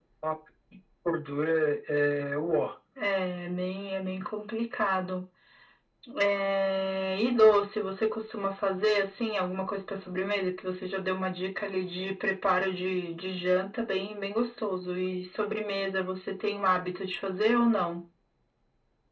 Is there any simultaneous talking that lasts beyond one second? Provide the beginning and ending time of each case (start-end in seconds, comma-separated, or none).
none